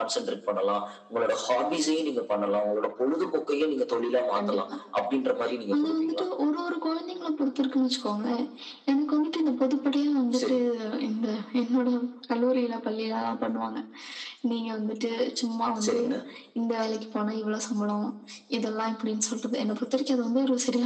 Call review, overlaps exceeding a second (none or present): none